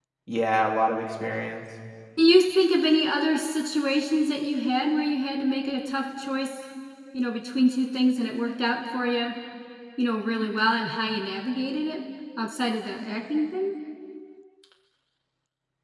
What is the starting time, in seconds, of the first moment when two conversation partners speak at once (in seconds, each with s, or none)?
none